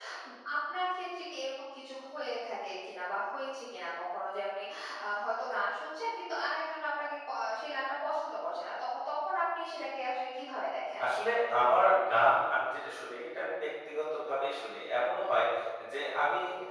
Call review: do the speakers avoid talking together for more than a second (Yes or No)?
Yes